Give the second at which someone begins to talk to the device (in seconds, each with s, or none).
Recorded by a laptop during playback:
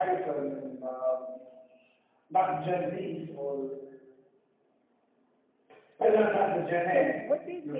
6.8 s